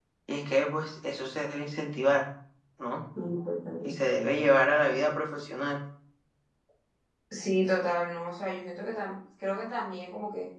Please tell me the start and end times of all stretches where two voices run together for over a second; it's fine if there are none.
none

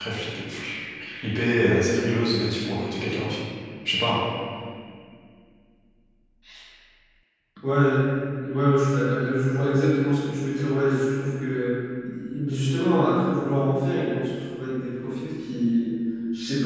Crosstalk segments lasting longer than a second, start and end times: none

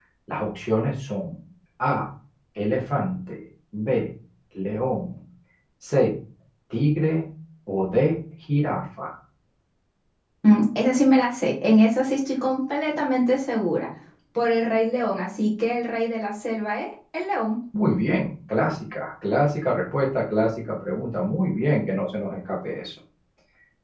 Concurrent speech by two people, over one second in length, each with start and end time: none

